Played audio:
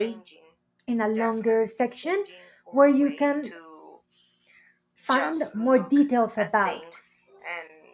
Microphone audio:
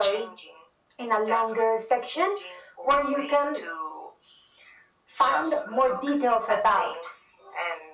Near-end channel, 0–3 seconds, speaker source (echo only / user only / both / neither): echo only